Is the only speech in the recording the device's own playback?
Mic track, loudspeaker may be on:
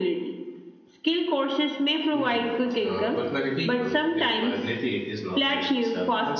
Yes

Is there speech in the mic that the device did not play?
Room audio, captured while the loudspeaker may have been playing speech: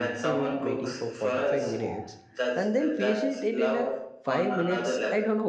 Yes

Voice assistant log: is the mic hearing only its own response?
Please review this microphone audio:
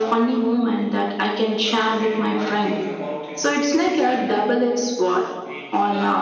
No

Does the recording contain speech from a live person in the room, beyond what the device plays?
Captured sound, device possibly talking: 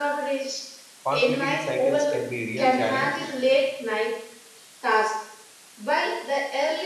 Yes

